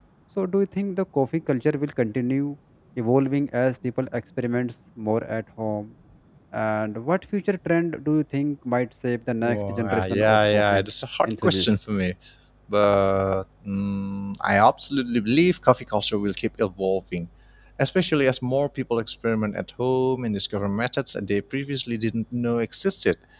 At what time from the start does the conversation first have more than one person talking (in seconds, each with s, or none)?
9.4 s